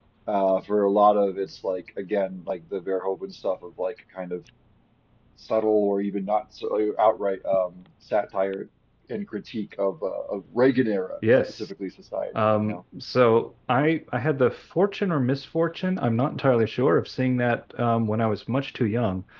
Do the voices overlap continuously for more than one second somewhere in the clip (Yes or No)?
No